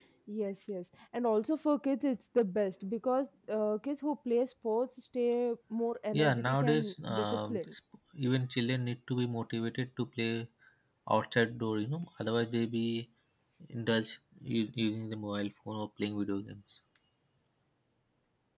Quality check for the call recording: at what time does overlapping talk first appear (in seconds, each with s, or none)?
6.1 s